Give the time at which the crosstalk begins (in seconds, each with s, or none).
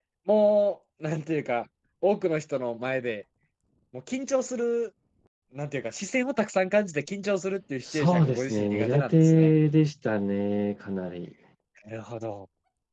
7.8 s